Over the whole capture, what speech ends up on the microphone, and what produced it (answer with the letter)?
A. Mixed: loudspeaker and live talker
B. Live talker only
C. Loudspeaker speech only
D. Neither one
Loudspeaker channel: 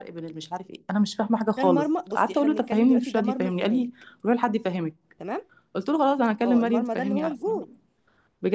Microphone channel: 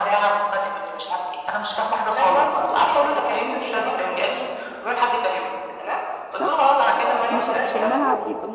A